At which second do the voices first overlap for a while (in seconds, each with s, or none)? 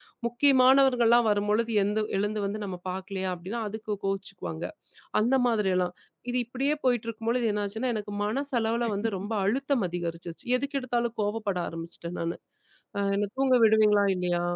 none